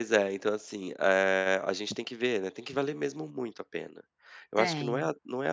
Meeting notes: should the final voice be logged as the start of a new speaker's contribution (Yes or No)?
No